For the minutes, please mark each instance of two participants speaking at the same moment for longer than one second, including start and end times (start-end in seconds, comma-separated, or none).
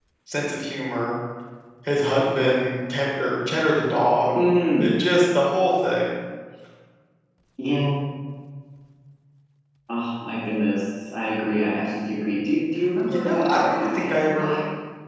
13.1-14.5